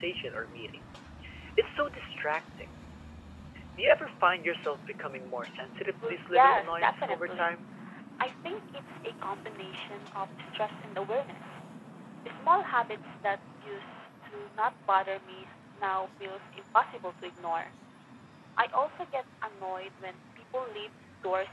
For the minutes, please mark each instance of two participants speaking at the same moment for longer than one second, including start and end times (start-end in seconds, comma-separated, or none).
6.0-7.5